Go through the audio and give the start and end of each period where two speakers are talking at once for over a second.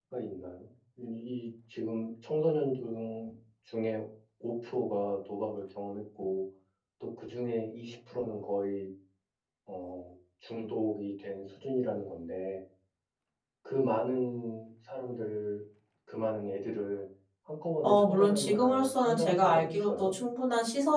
17.8-20.1

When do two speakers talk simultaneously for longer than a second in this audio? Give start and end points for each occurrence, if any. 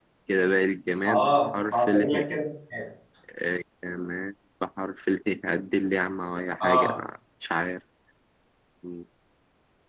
1.1-2.3

